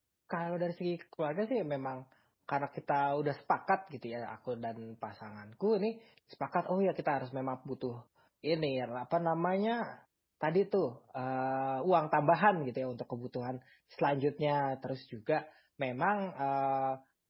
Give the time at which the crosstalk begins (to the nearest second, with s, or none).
none